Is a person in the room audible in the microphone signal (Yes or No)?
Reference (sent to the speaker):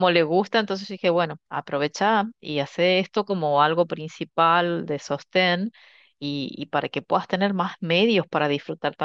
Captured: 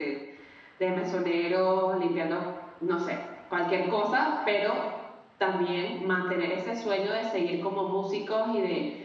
Yes